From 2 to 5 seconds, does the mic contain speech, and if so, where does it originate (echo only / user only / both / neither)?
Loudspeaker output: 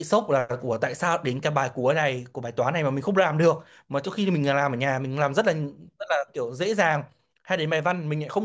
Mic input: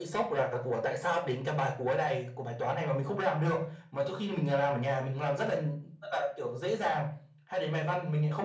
echo only